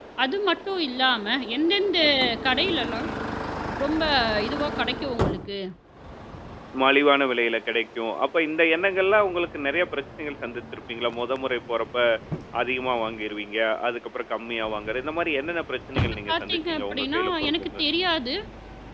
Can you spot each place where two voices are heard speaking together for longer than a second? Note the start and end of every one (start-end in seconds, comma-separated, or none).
16.0-17.8